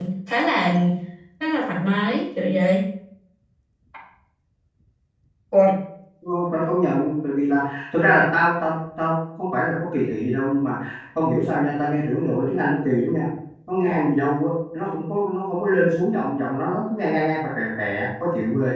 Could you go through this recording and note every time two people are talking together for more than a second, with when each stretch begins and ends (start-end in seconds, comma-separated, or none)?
none